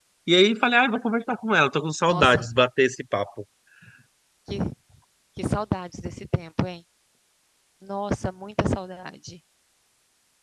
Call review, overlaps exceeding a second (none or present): none